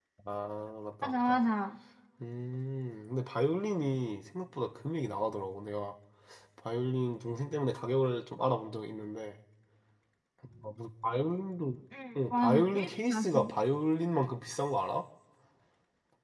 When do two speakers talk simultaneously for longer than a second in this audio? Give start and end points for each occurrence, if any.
12.3-13.5

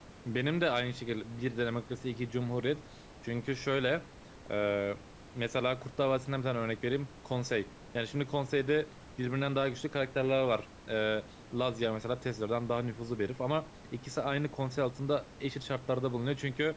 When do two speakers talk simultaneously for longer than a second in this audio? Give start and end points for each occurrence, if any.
none

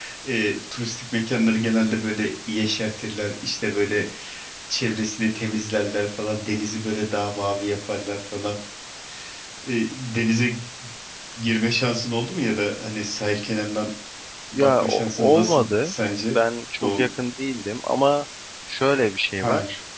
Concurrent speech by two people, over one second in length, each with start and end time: 14.6-15.9

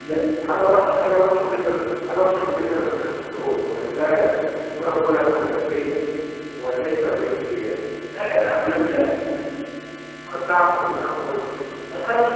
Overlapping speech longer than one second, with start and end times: none

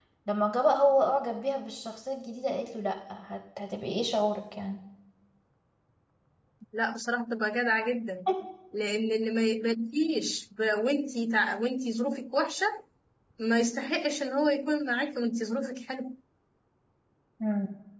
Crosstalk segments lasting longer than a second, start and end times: none

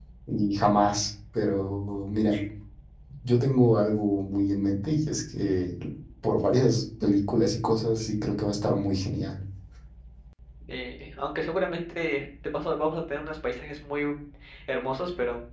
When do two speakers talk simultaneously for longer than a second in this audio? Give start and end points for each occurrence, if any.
none

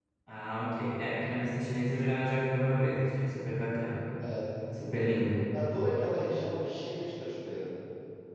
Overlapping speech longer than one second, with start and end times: none

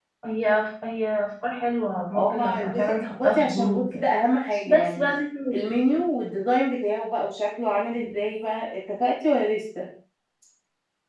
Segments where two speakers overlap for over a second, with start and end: 2.1-4.0

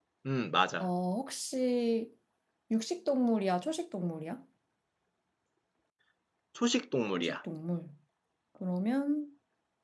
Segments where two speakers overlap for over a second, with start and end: none

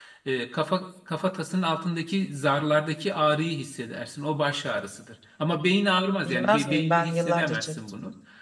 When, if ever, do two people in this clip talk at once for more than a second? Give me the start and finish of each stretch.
6.2-7.8

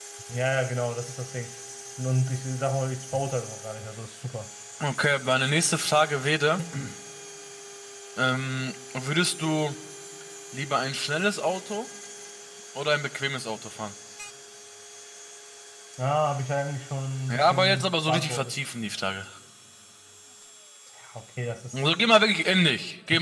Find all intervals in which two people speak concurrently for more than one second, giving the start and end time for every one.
17.3-18.5

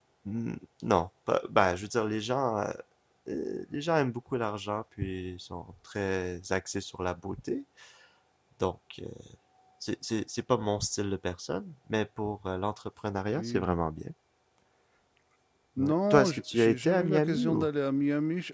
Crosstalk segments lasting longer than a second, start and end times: 15.8-17.7

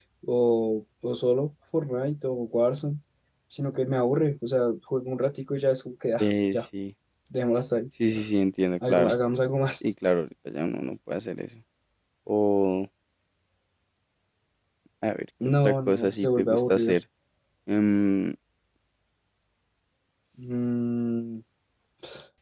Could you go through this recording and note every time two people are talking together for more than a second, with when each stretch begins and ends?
15.6-17.0

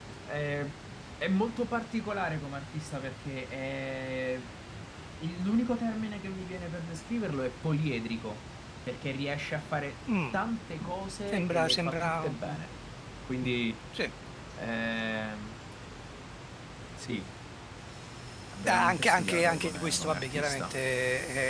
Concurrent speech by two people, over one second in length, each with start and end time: 11.3-12.6, 18.7-20.8

